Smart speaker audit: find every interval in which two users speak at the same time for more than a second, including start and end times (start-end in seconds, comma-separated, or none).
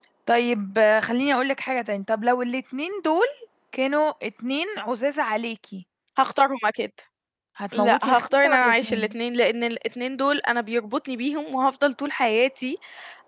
7.7-9.1